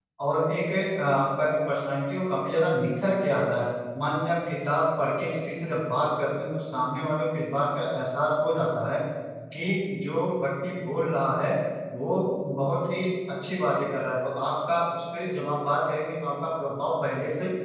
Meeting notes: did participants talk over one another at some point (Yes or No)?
No